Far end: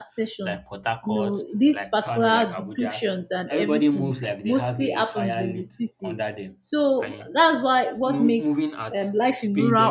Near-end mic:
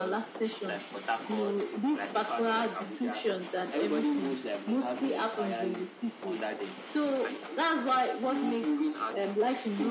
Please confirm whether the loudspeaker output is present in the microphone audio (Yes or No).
Yes